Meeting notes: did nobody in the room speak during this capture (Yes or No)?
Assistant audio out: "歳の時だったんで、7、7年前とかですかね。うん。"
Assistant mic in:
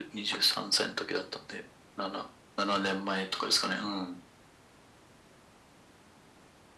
Yes